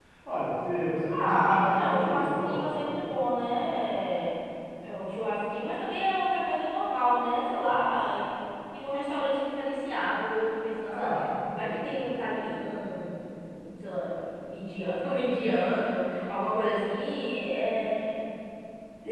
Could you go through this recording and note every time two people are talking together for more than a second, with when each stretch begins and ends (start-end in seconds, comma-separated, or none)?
1.2-2.8